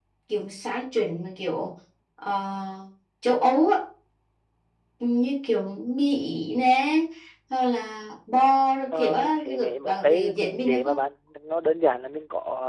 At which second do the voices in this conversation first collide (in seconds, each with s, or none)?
8.9 s